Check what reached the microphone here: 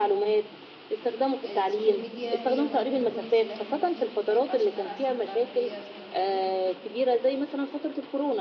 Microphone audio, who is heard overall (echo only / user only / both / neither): both